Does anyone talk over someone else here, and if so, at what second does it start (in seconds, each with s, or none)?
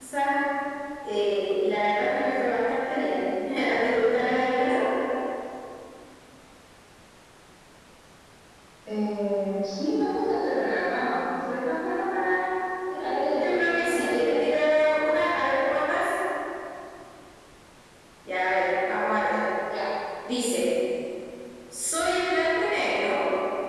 13.0 s